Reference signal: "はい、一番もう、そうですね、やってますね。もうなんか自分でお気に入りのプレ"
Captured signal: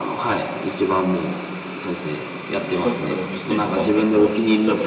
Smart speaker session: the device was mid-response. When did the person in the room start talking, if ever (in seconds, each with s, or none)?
2.5 s